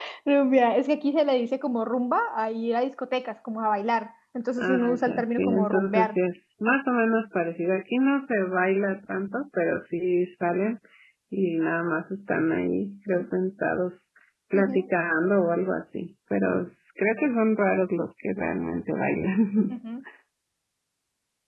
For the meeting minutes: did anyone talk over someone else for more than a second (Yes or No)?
Yes